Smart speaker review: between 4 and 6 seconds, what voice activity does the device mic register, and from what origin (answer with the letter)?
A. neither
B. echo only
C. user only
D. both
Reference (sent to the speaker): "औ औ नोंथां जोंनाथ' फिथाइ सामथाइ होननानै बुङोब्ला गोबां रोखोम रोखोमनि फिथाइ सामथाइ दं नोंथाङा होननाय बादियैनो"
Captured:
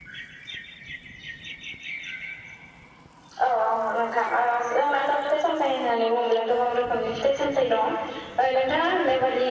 B